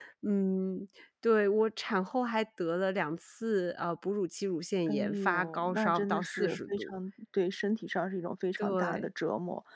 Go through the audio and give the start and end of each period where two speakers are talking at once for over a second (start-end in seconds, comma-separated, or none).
4.9-6.9